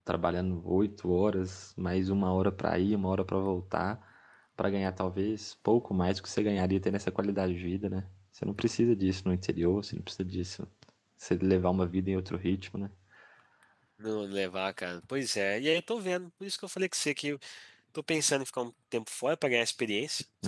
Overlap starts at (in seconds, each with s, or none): none